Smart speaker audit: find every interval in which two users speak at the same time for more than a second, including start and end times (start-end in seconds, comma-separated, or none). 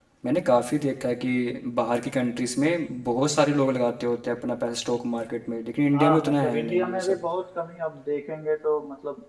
5.9-7.2